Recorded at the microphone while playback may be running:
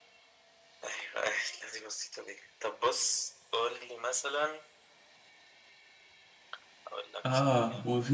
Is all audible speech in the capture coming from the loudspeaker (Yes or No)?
No